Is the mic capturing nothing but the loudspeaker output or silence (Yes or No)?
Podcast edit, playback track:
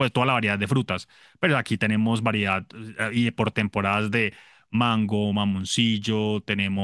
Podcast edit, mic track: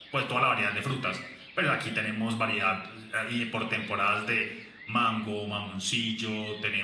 Yes